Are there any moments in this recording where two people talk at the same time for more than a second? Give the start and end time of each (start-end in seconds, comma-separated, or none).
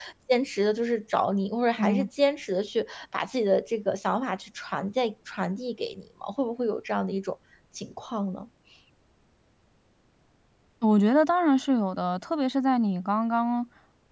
none